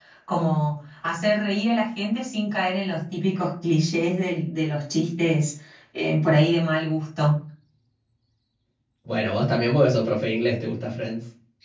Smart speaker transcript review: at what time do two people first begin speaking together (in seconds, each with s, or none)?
none